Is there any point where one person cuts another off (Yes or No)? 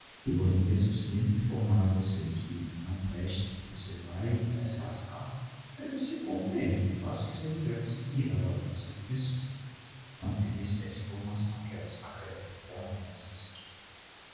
No